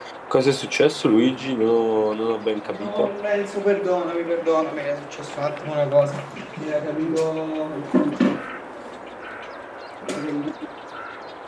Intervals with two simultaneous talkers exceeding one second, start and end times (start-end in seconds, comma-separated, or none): none